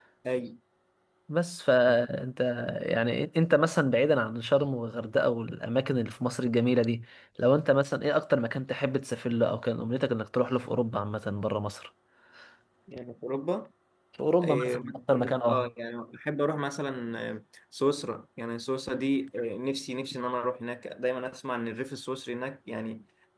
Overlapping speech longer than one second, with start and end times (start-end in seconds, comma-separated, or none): 14.4-15.7